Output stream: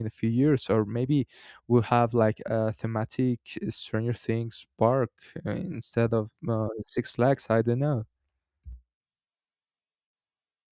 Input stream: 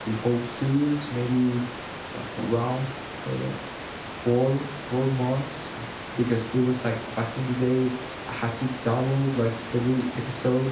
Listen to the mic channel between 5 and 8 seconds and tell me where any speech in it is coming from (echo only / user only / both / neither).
user only